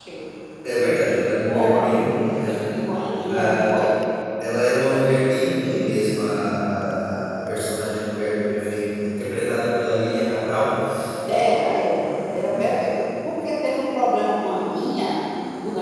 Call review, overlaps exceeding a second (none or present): present